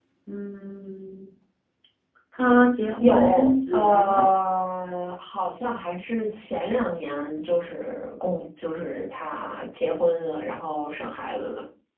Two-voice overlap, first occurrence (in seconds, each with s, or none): 3.0 s